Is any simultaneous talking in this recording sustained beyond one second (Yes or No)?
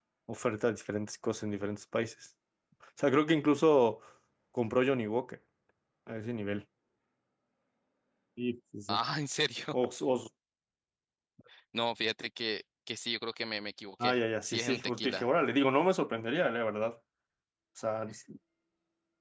Yes